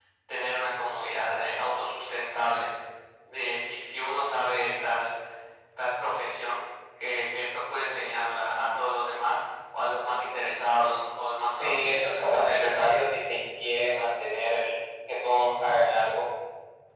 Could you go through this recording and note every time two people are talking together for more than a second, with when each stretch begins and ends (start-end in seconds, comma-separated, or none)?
11.5-12.8